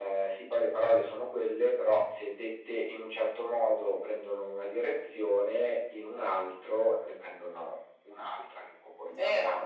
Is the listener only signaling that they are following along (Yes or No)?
No